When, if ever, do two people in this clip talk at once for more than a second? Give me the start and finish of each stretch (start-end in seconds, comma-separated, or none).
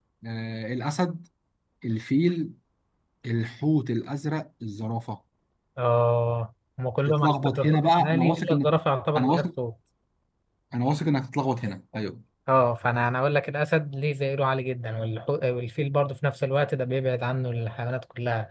7.1-8.7